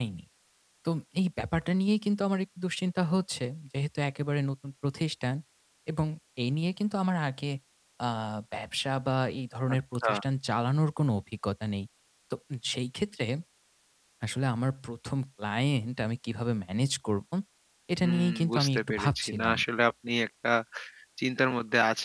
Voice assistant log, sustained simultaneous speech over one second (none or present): present